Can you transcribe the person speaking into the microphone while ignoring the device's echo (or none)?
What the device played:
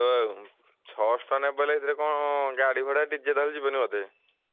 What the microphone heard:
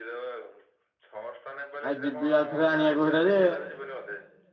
ଆଉ ଯିବି ଆଉ ଥରେ ଆଣିବାକୁ ହେଇଟା ଯେ